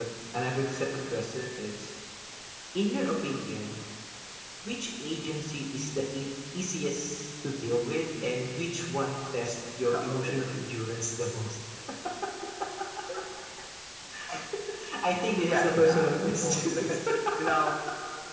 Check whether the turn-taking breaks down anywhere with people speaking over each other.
Yes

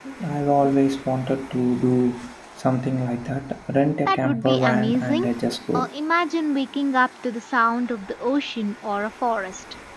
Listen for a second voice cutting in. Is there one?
Yes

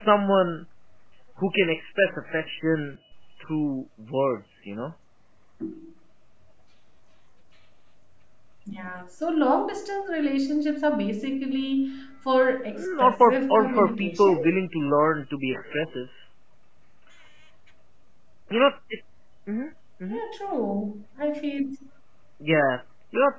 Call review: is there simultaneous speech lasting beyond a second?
Yes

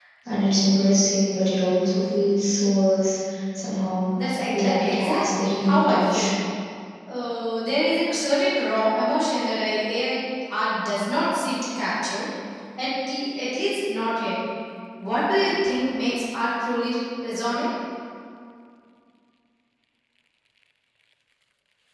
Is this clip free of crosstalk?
No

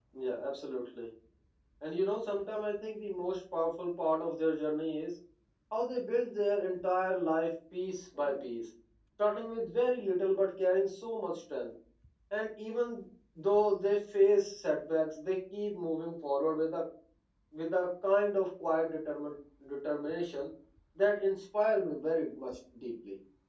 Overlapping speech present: No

